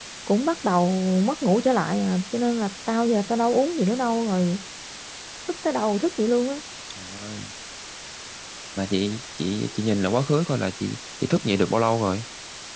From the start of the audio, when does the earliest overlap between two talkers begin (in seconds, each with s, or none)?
none